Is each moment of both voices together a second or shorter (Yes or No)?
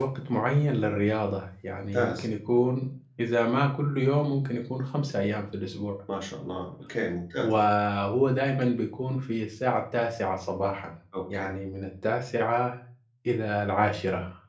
Yes